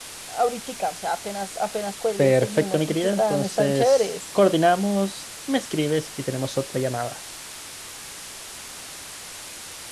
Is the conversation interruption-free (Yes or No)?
No